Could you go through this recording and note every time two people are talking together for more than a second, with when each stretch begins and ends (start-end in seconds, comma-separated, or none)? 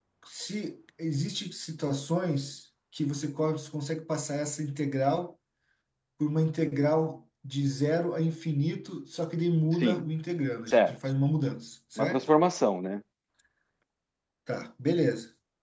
none